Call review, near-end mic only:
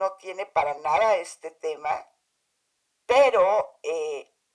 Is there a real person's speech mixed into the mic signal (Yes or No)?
No